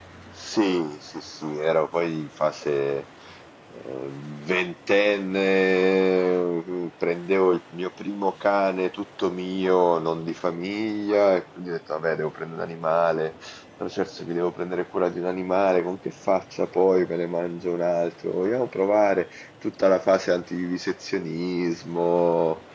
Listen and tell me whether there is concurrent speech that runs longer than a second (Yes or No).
No